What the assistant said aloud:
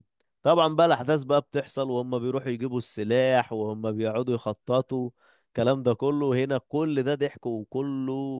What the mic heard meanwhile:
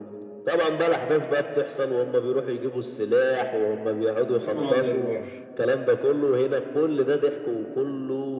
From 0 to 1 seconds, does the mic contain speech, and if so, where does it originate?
echo only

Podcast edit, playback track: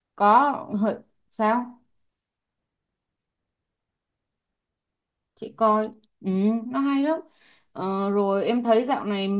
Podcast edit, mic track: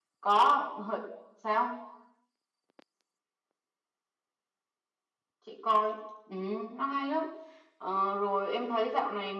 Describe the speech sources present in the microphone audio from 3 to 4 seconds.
neither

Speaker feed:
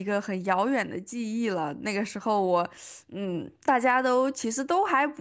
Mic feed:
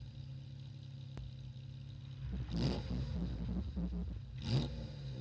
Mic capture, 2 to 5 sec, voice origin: neither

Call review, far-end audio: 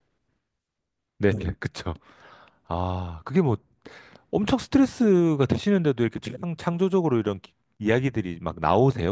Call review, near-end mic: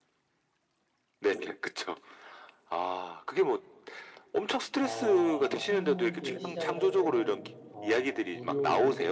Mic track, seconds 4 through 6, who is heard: both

